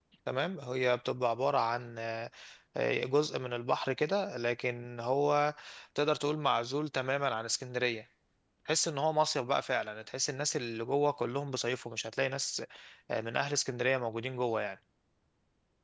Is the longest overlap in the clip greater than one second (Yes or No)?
No